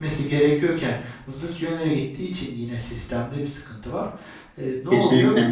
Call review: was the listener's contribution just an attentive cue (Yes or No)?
Yes